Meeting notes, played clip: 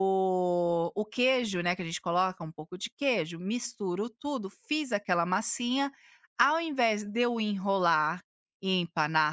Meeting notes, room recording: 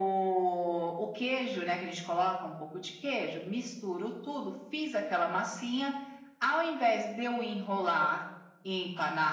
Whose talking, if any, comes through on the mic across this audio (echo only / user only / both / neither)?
echo only